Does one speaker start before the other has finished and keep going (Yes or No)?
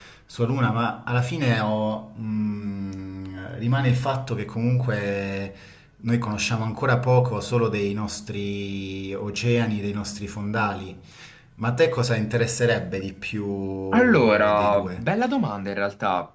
Yes